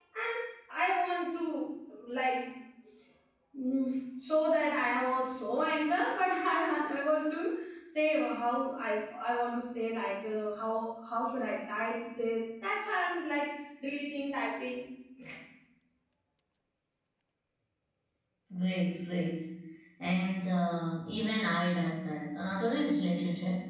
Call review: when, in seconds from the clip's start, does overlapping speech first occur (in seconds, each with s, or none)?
none